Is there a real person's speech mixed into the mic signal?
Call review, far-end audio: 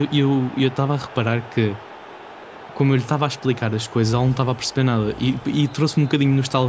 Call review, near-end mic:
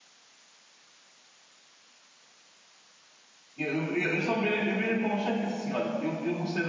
Yes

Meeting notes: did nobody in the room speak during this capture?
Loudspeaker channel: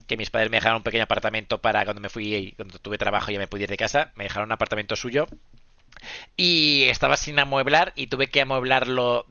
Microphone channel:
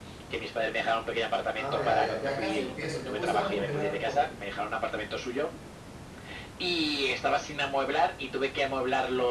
No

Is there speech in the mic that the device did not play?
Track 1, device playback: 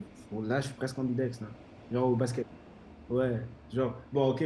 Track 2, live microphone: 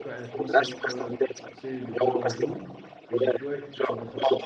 Yes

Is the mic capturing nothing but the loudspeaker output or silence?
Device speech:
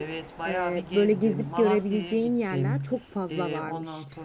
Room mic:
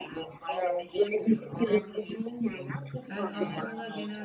No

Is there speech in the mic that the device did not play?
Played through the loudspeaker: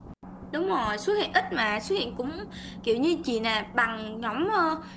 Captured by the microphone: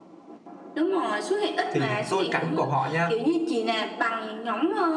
Yes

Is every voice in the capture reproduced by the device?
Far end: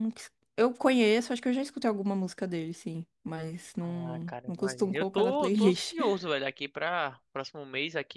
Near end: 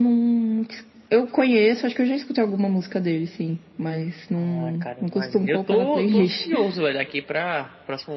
Yes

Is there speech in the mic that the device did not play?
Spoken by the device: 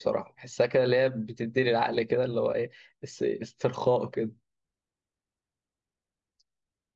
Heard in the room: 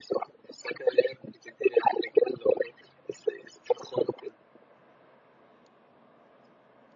No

